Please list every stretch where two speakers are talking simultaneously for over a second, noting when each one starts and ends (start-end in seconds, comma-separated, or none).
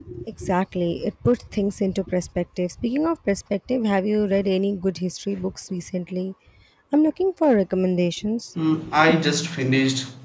none